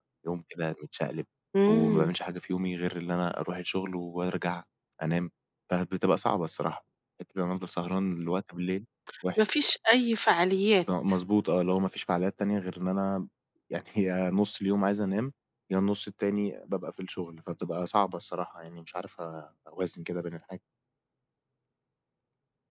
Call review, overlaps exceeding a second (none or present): none